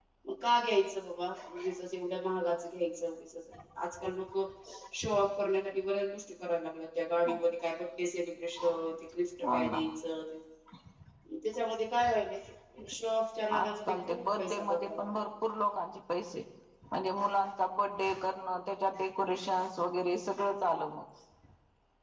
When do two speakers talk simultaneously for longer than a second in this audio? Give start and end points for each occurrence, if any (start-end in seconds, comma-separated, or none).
13.6-15.1